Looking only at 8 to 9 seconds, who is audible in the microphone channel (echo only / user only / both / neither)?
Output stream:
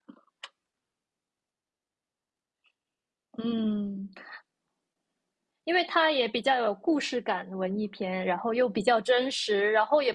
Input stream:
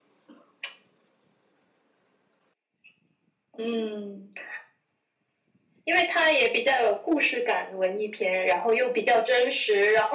echo only